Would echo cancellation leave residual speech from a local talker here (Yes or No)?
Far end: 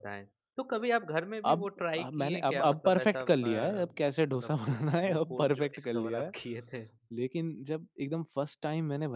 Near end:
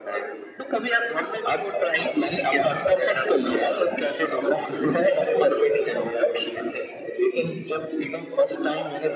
No